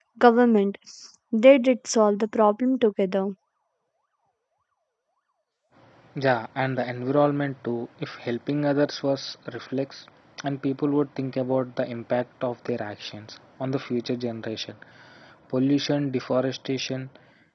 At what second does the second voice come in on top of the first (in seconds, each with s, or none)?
none